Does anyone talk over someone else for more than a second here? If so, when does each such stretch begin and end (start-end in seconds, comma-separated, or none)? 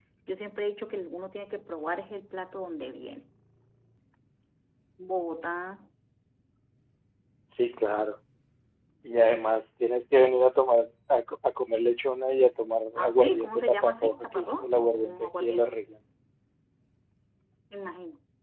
13.0-15.6